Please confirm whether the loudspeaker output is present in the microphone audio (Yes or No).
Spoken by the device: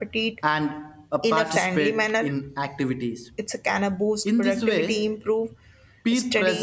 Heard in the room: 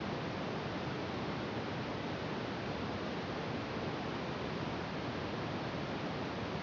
No